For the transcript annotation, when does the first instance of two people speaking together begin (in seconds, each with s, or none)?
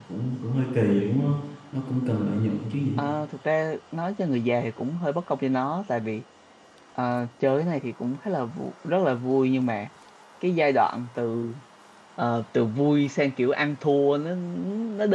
none